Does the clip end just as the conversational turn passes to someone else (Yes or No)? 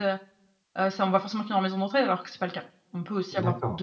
Yes